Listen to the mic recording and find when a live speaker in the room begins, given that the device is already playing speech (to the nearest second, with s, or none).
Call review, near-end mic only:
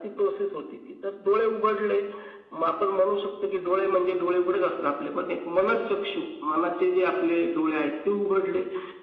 none